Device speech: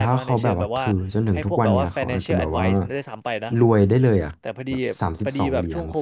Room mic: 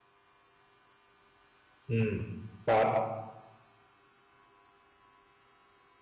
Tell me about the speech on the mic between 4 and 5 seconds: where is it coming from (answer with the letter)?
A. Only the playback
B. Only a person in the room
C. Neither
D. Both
C